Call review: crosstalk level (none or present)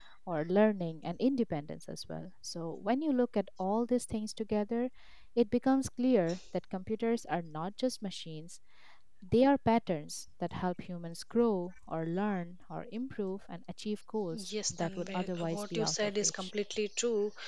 present